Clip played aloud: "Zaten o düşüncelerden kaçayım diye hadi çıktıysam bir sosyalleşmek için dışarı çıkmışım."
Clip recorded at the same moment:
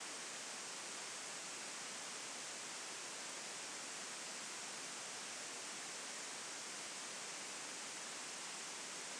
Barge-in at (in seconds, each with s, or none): none